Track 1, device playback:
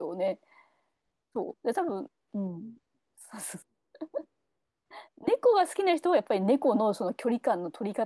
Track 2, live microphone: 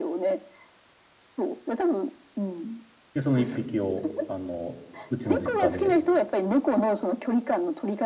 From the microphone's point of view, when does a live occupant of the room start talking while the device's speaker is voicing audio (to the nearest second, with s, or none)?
3 s